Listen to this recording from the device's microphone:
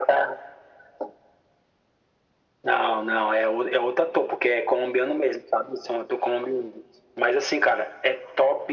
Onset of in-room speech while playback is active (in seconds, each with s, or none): none